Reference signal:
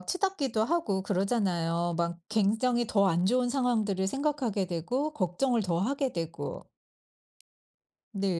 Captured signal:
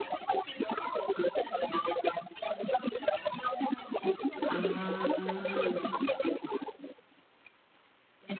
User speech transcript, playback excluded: 아.

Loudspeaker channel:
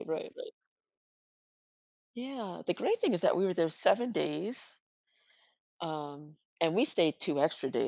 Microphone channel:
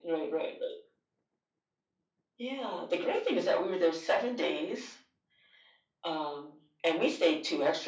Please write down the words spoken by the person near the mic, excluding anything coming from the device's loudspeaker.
none

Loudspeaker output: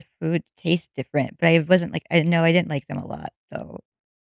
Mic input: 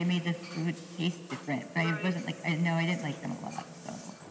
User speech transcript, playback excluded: Right.

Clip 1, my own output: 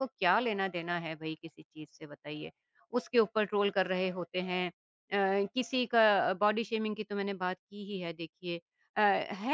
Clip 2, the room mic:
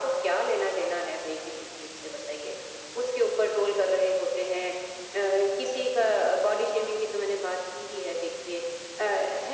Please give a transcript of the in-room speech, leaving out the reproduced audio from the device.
none

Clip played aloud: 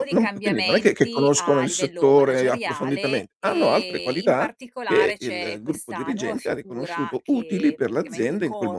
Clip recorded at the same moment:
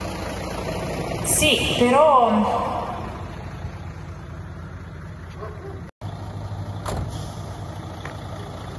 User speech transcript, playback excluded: Sì, però, mhmm,

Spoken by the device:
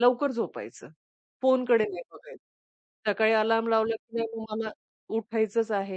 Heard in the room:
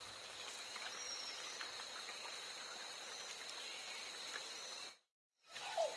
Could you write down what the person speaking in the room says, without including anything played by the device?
none

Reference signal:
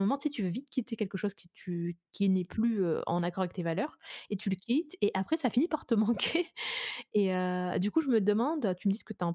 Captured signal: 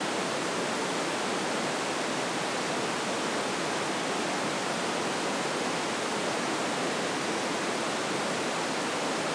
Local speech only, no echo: none

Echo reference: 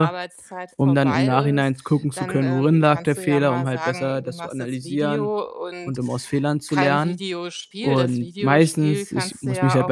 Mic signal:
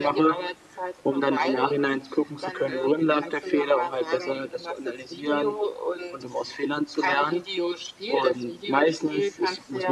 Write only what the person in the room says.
none

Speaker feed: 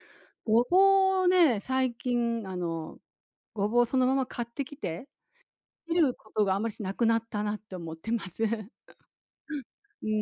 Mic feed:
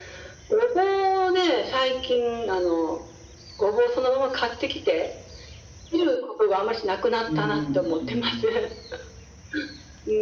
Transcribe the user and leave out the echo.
うん、うん。

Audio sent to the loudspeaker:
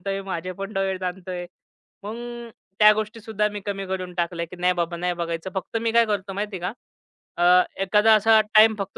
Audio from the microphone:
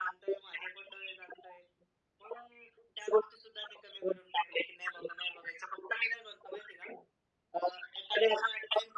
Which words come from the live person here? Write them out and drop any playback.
none

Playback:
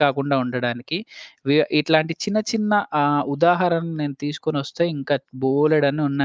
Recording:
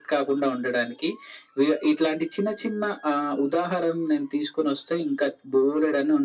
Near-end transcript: none

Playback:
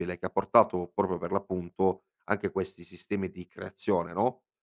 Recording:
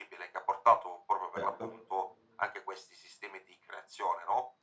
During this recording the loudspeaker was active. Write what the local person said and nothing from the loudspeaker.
certo.

